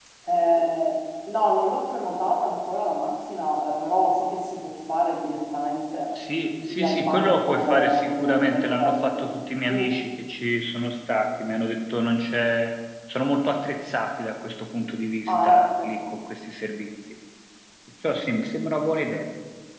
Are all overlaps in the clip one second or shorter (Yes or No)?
No